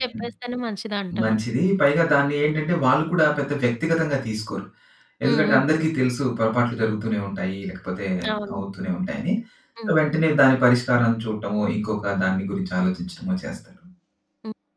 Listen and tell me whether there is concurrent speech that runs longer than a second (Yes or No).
No